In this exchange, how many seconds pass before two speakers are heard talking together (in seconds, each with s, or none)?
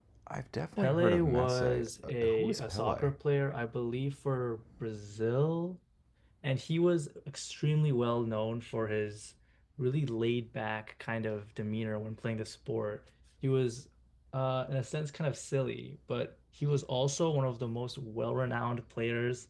0.8 s